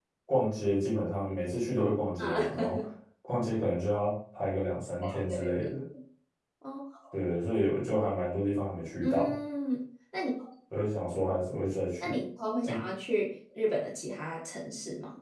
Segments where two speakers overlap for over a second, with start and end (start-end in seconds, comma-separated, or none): none